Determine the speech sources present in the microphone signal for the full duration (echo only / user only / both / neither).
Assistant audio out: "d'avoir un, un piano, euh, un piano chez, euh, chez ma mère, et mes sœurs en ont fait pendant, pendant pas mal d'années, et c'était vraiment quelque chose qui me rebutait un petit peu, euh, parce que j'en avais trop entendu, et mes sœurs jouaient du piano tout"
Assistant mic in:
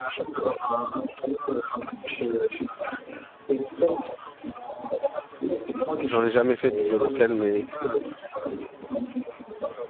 both